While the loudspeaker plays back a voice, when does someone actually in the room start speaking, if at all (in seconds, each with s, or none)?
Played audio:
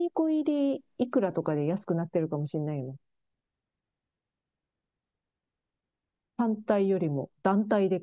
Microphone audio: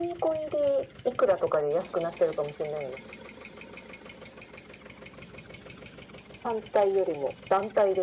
none